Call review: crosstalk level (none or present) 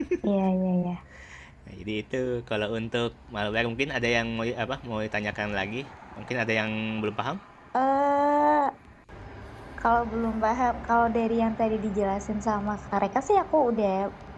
none